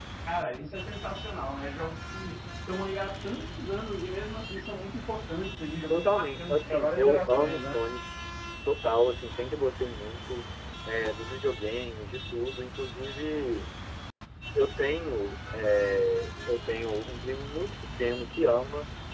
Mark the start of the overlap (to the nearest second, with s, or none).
6 s